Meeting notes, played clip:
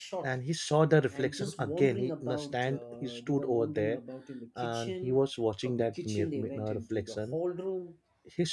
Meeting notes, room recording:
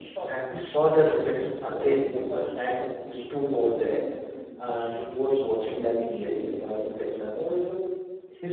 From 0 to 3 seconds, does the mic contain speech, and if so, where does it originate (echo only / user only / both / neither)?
echo only